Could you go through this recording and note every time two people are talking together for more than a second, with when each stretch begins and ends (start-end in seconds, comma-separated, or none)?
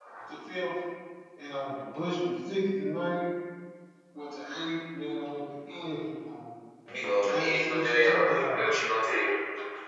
7.2-8.6